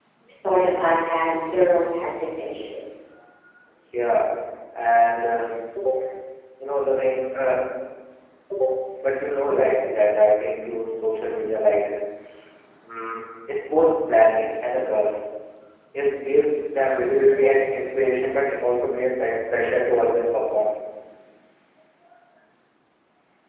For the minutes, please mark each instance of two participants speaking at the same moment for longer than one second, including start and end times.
none

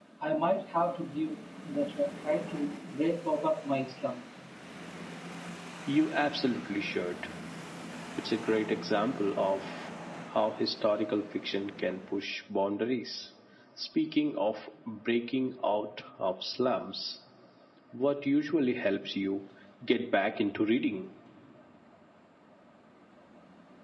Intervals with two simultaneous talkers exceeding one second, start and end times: none

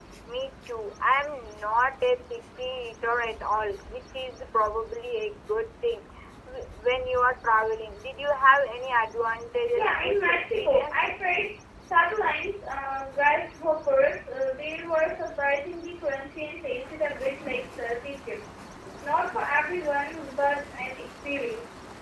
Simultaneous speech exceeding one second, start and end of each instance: 9.7-11.1

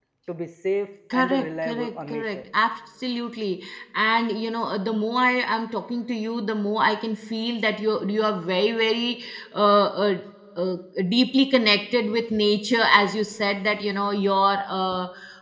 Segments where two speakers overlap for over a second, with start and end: 1.1-2.4

